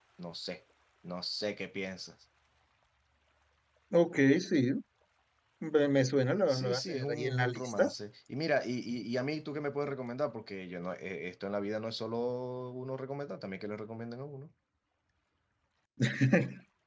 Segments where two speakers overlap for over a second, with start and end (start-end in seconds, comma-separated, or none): 6.5-7.9